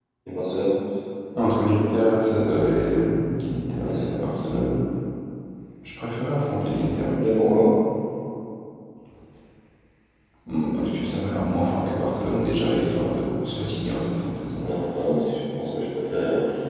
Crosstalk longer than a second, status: none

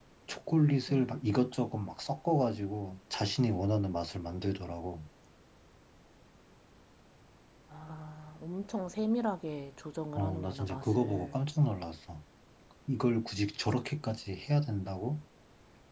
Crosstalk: present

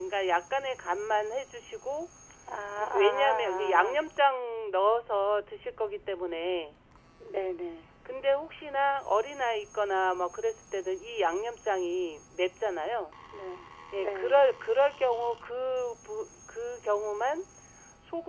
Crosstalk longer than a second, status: present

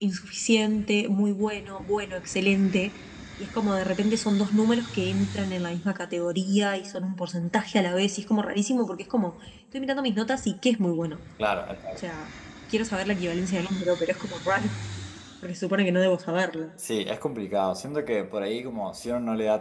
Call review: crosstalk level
none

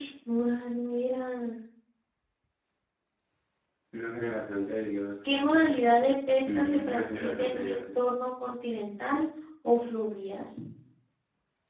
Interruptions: present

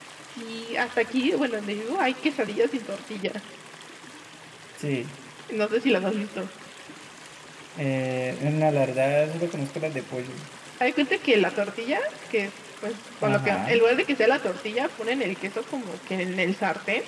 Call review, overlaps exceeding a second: none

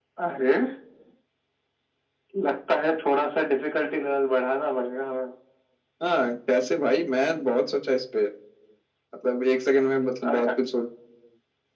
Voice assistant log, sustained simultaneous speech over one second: none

